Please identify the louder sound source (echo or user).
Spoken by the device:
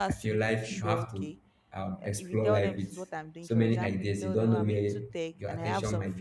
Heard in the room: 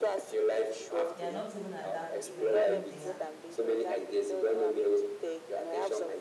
echo